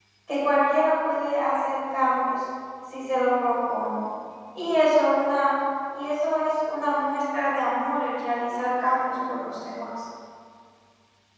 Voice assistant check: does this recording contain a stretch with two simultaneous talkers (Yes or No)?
No